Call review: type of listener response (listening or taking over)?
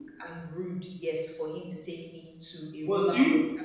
taking over